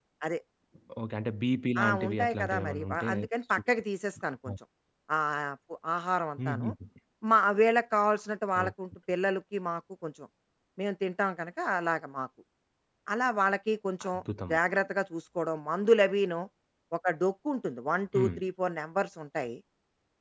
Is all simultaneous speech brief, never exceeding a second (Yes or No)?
No